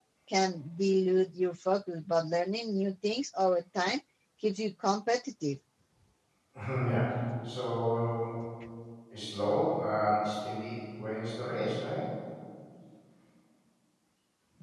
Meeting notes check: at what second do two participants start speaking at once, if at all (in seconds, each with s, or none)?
none